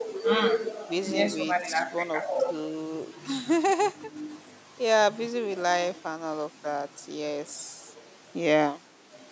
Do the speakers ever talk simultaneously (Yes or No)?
Yes